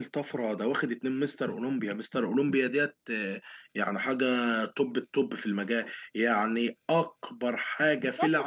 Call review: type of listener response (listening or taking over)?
taking over